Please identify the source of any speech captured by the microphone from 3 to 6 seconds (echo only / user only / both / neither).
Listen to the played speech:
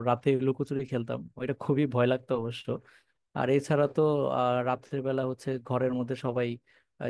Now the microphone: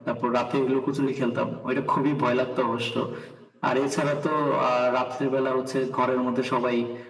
echo only